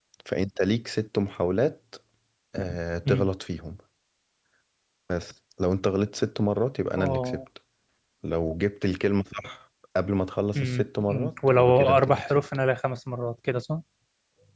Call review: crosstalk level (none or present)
present